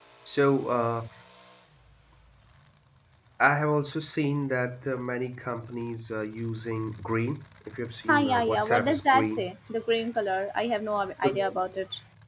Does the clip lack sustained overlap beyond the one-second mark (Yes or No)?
No